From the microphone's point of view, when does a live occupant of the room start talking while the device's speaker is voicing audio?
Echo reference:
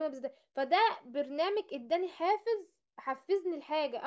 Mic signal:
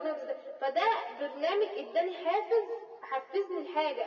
none

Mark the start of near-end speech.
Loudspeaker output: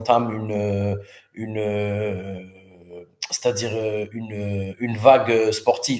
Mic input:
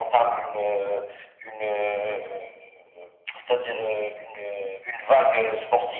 none

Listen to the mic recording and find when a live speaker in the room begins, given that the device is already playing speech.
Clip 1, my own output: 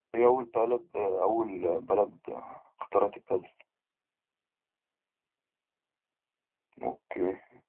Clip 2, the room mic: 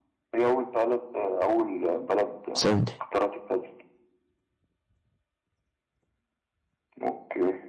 2.5 s

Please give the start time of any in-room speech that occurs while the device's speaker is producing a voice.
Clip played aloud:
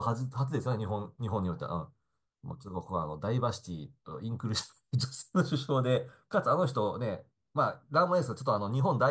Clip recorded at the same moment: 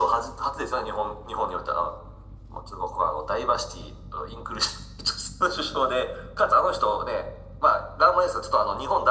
none

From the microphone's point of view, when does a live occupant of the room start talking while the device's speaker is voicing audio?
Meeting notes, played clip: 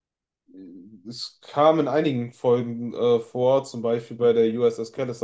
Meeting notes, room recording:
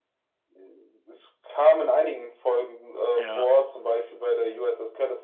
3.1 s

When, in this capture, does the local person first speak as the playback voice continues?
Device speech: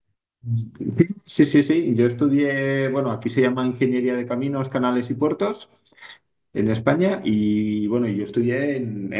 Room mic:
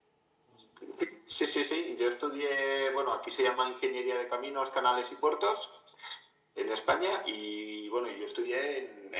none

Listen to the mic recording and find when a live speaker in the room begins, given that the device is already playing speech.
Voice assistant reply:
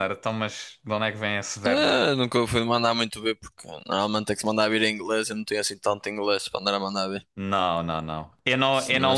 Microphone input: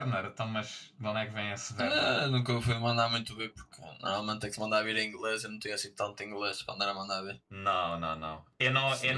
none

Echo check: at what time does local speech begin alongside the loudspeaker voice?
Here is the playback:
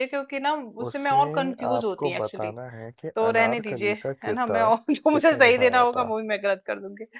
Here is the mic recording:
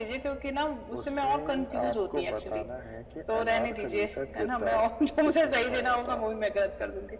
none

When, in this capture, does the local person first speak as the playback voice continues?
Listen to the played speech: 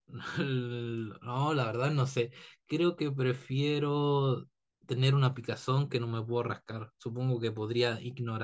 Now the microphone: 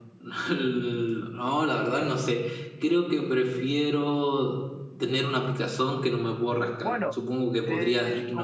6.8 s

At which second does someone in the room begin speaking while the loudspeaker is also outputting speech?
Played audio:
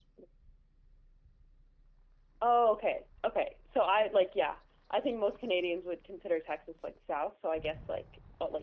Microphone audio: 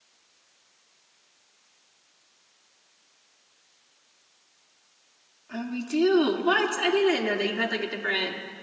5.5 s

